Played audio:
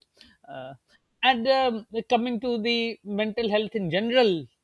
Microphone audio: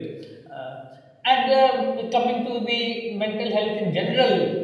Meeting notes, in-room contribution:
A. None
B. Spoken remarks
A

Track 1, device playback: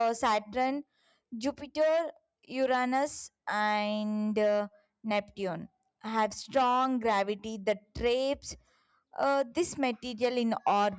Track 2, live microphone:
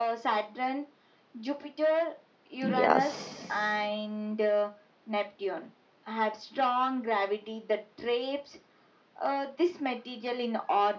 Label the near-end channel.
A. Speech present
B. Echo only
A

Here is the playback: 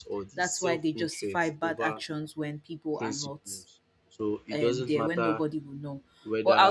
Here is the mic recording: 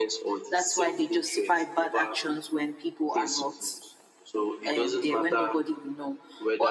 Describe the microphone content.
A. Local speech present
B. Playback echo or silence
B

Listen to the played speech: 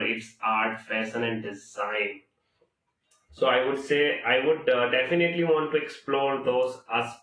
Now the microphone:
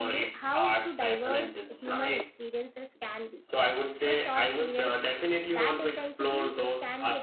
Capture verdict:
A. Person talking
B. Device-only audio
A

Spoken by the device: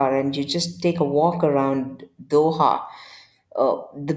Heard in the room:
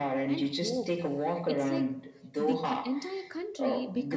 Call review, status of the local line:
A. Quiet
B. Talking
B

